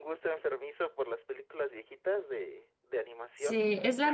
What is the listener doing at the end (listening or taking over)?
taking over